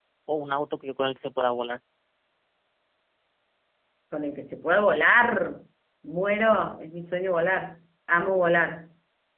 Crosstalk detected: No

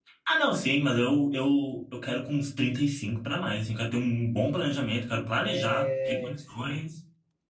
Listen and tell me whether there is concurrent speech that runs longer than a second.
Yes, from 5.4 s

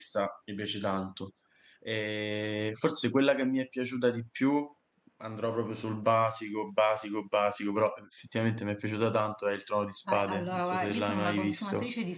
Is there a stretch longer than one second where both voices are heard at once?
Yes, from 10.1 s

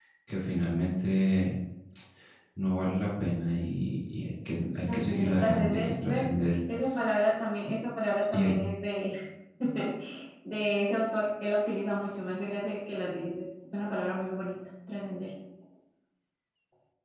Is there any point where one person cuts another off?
Yes, from 4.9 s

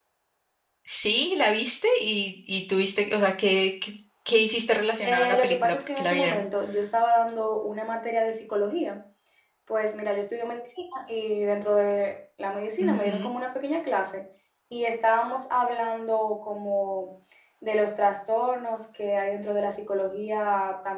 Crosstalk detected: Yes, from 5.0 s

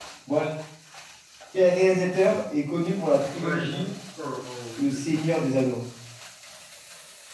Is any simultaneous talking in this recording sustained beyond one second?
No

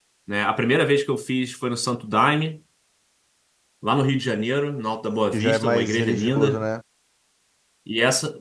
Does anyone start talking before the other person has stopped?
Yes, from 5.3 s

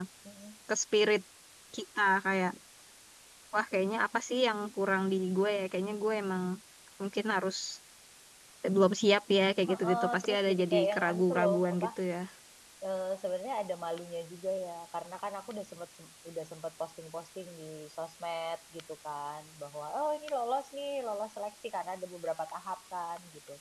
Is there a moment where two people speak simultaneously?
Yes, from 9.7 s

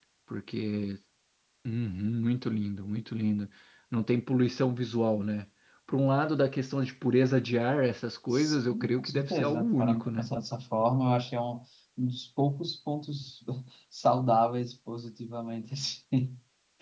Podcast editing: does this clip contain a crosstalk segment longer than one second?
Yes, from 8.3 s

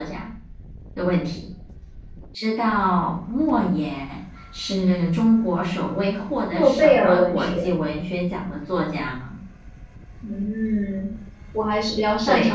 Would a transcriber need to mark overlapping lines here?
Yes, from 6.5 s

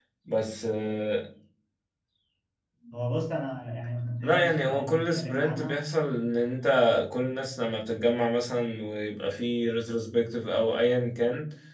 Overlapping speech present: Yes, from 4.2 s

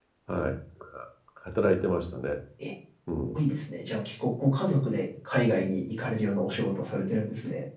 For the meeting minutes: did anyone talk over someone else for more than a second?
No

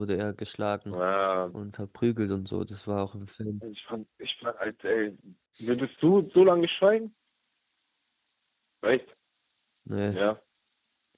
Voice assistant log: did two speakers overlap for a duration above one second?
No

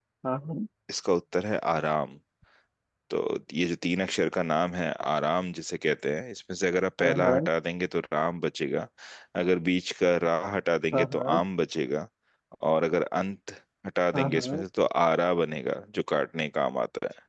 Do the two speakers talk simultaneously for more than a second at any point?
No

